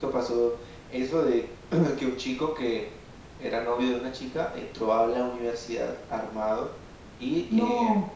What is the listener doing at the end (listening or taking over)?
listening